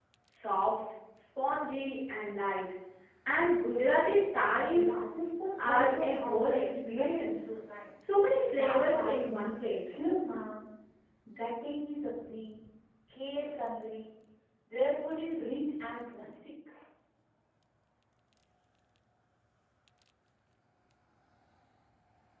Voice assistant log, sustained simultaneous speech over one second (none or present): present